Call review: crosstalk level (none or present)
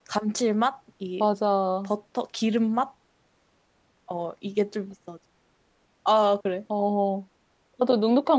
none